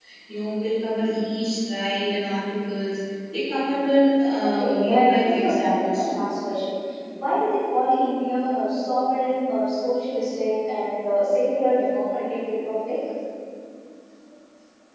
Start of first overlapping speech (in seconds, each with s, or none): 4.6 s